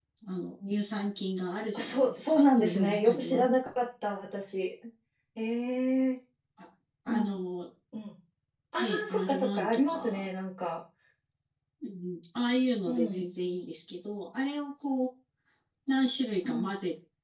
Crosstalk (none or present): present